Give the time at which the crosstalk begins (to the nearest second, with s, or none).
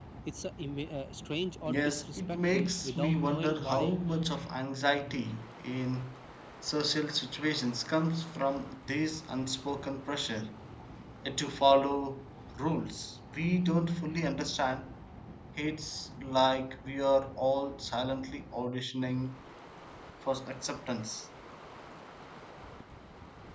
2 s